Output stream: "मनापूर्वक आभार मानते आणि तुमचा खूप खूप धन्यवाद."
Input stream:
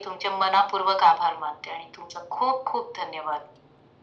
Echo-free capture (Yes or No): No